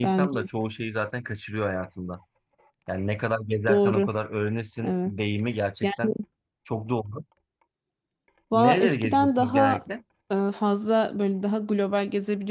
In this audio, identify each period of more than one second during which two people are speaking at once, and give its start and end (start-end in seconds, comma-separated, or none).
8.5-9.8